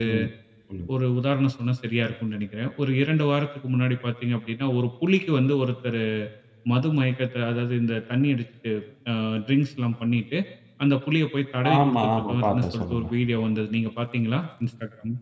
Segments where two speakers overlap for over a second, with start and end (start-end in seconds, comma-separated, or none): 11.8-13.1